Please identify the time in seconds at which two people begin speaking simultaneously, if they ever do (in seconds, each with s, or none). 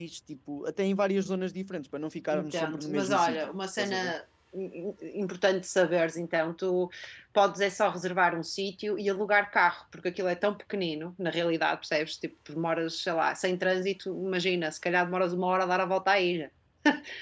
2.3 s